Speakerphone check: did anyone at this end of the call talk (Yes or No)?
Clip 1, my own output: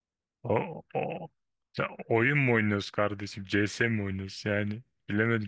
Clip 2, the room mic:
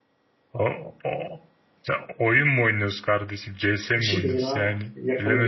Yes